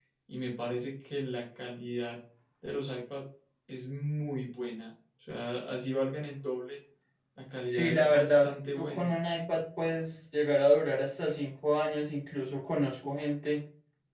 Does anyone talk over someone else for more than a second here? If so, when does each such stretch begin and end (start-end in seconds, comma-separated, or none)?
7.7-9.2